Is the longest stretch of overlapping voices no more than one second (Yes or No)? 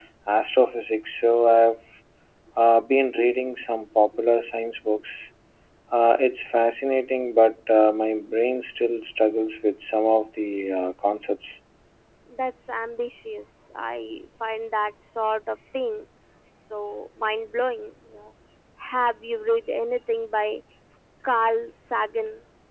Yes